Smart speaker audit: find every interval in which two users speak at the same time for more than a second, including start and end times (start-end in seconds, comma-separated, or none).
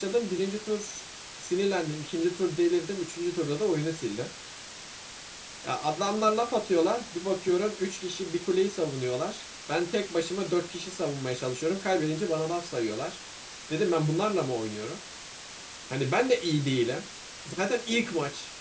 none